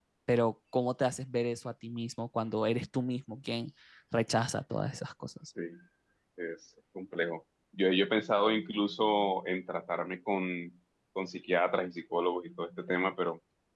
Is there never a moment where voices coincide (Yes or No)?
Yes